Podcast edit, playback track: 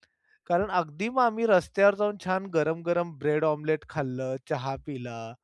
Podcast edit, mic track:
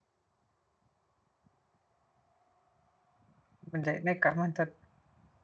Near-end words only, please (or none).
म्हणजे नाही का म्हणतात.